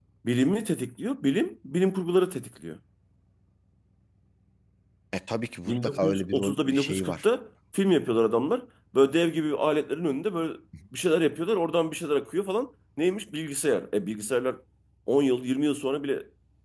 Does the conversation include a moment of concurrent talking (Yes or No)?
Yes